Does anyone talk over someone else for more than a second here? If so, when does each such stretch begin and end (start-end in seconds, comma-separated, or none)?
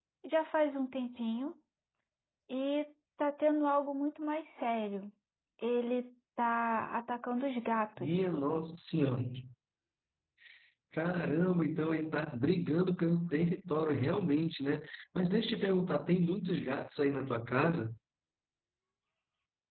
none